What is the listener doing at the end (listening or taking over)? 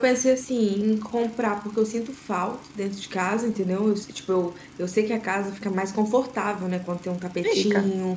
listening